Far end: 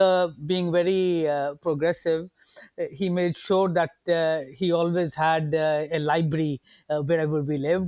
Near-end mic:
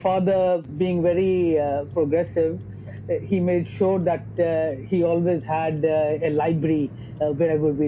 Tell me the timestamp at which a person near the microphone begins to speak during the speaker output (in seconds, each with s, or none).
none